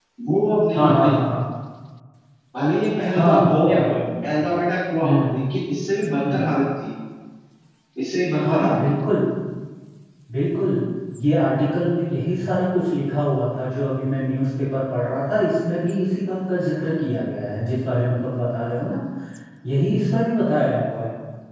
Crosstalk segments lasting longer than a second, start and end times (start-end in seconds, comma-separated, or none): 3.1-4.3